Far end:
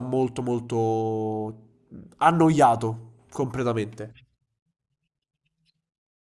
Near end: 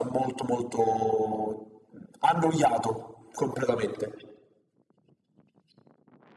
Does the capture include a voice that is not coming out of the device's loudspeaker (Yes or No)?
No